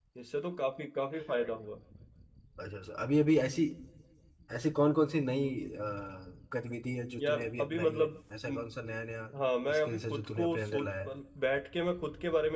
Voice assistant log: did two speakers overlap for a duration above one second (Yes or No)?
Yes